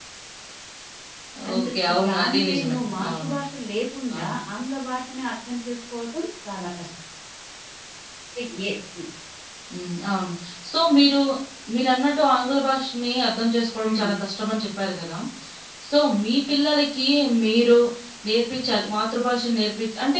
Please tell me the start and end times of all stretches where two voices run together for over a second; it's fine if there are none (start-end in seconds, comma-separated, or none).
1.6-3.3